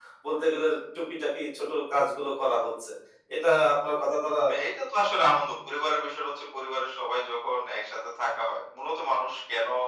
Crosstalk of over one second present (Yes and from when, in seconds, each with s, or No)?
No